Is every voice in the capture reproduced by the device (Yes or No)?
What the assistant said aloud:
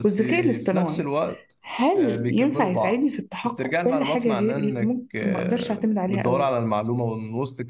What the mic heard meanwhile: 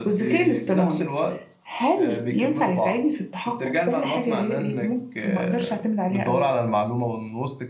Yes